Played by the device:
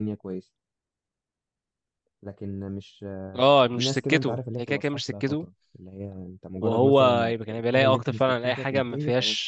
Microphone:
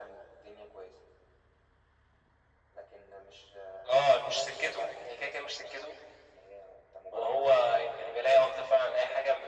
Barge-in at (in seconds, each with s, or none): none